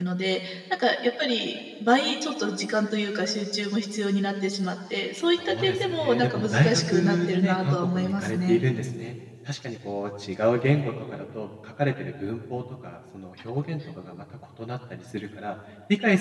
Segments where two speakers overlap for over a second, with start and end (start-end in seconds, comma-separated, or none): 5.4-8.6